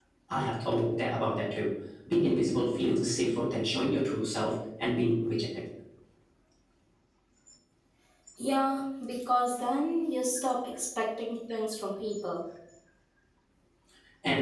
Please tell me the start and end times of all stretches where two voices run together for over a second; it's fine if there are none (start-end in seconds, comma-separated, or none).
none